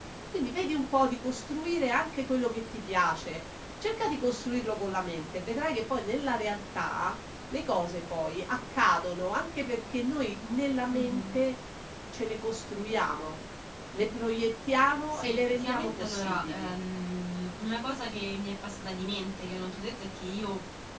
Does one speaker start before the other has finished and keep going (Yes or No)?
Yes